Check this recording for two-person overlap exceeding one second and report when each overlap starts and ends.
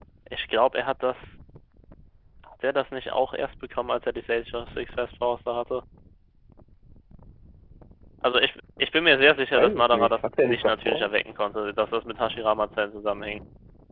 9.6-11.1

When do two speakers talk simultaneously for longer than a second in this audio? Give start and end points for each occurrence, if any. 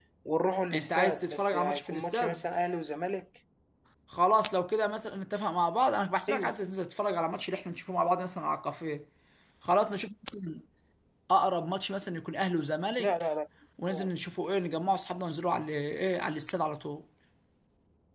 0.7-2.4

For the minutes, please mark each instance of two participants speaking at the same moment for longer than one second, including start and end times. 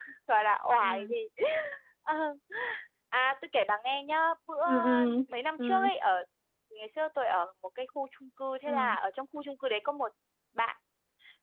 none

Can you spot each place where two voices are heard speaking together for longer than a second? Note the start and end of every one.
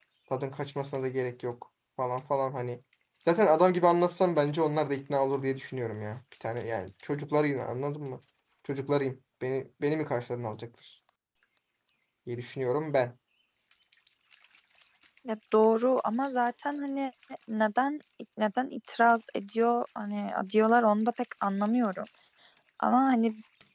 none

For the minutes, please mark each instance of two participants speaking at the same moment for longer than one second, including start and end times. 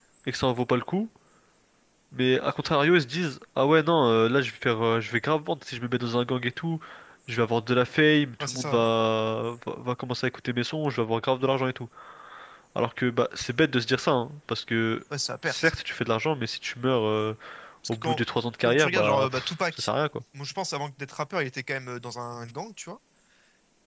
18.6-19.9

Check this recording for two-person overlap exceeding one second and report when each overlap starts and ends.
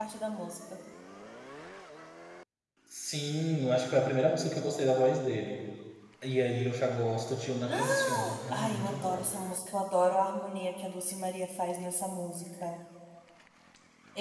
7.7-9.3

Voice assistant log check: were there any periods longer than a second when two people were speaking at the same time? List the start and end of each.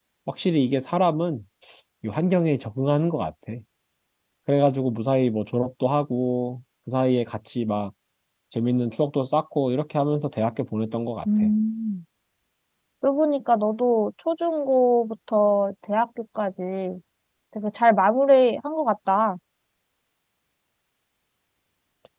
none

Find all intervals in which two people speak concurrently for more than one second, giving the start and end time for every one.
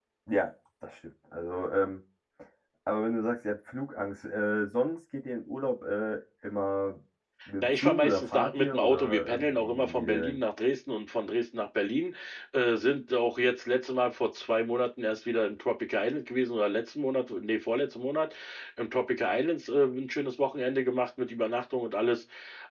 7.6-10.4

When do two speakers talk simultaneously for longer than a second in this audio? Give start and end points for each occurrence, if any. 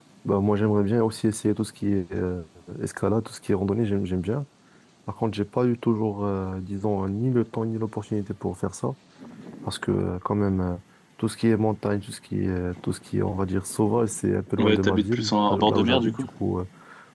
14.6-16.3

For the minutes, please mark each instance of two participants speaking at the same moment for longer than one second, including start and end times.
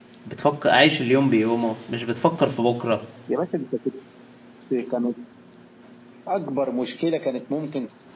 none

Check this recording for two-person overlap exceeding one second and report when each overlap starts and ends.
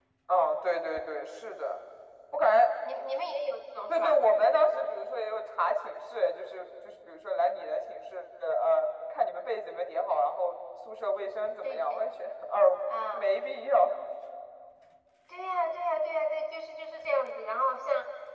none

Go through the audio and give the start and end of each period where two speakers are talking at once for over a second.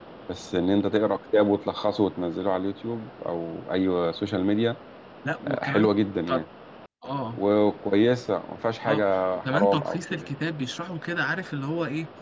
8.8-10.3

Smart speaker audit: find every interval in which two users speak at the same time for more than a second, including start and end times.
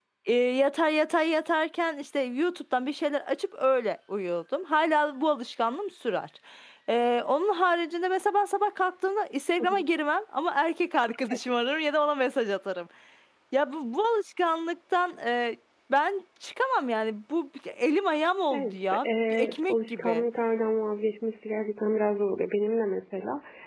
18.5-20.2

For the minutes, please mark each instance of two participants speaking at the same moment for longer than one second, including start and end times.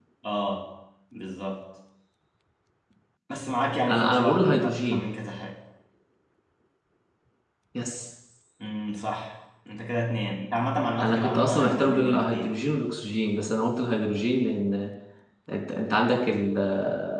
3.9-5.1, 11.0-12.5

